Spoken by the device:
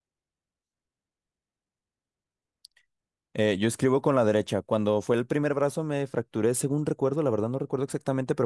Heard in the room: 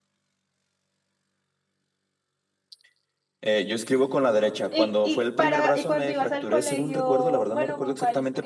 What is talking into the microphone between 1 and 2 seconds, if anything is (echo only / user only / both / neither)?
neither